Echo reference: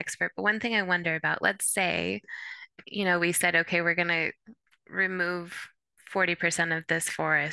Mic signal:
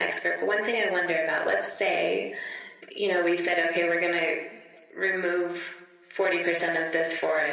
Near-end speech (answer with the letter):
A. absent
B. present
A